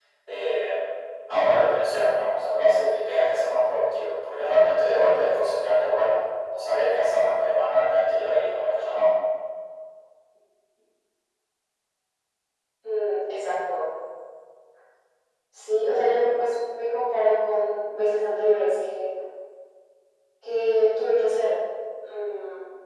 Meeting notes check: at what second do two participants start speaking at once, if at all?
none

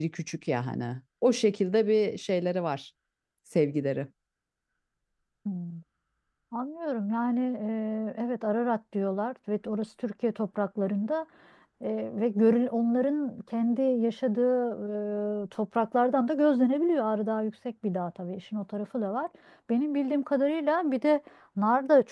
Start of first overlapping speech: none

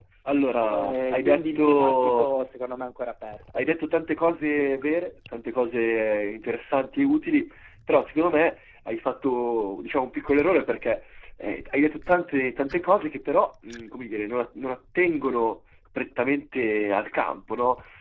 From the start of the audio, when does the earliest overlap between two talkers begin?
0.6 s

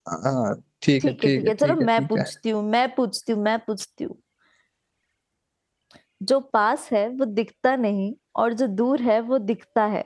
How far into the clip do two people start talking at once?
1.0 s

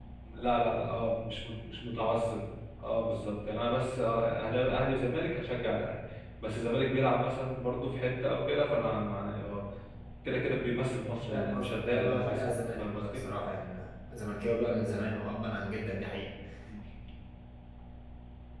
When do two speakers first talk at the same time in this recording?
11.3 s

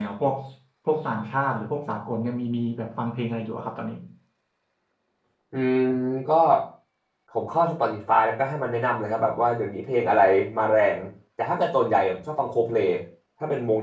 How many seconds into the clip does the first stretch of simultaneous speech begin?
none

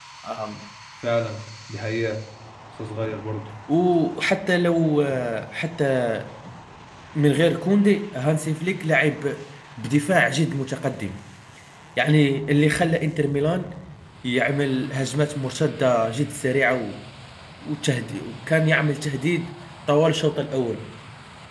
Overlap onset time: none

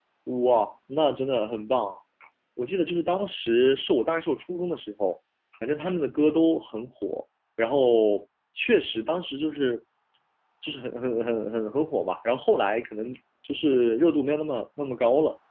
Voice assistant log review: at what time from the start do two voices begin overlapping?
none

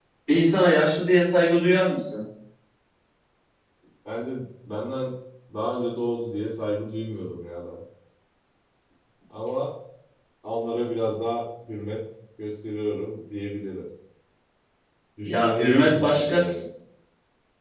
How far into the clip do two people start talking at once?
15.2 s

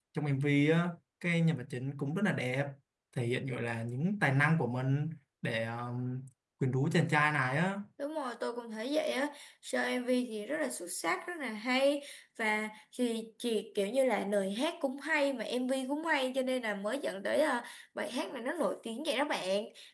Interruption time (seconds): none

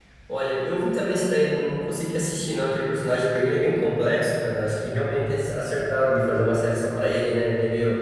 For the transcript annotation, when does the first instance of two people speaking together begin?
none

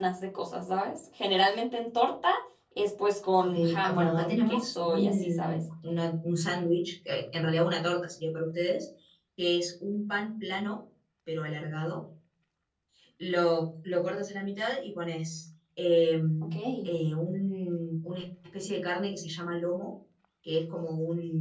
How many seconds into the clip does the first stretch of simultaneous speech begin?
3.4 s

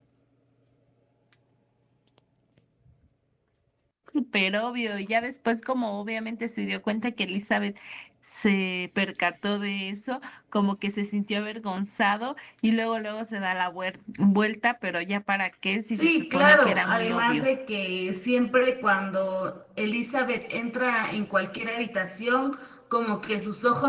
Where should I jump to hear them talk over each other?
15.9 s

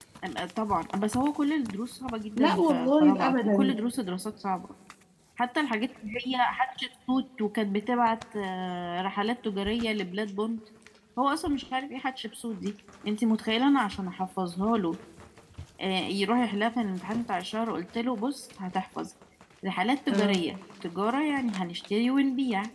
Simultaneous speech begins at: 2.4 s

